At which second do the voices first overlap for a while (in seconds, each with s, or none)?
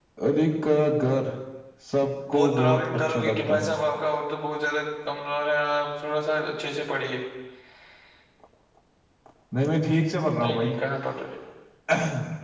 2.3 s